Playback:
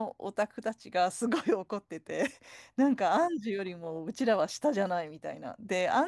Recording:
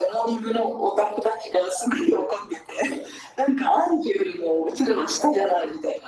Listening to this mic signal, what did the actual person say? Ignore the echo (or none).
none